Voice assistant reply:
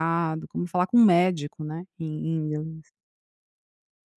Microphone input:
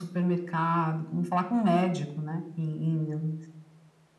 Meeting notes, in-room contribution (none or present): none